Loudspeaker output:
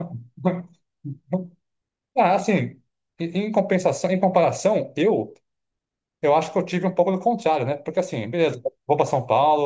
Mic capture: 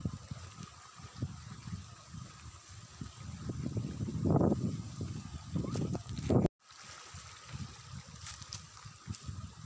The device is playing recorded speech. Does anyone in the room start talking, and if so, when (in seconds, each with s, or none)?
none